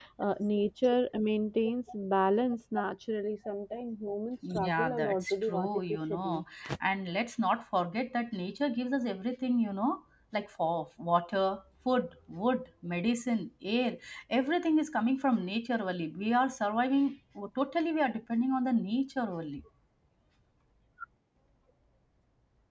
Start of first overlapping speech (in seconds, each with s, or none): 4.4 s